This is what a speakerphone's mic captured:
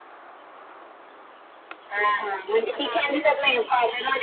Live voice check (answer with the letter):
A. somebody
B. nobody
A